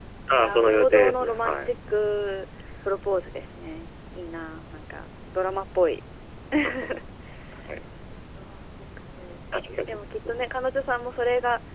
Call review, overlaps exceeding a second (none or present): present